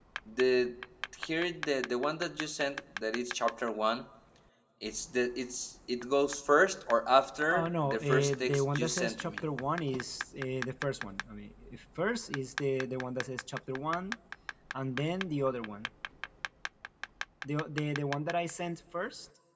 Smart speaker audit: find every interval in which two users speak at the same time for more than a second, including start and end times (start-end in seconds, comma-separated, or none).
7.5-9.5